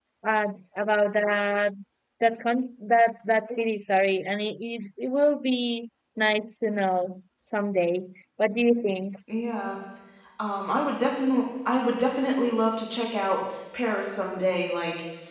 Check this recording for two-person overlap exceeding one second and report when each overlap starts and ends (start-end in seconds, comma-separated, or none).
none